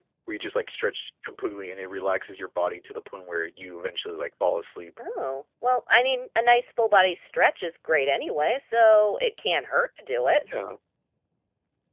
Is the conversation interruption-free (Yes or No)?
Yes